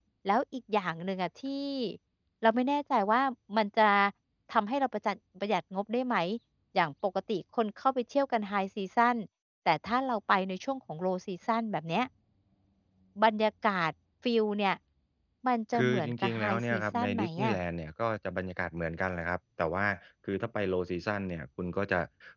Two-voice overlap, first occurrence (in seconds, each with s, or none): 15.8 s